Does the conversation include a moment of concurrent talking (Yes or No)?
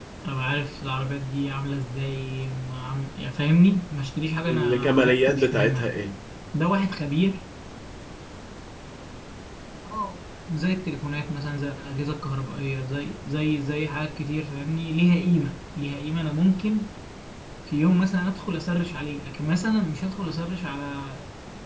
Yes